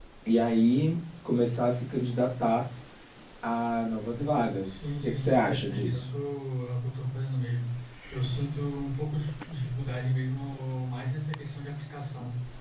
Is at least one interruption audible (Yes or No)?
Yes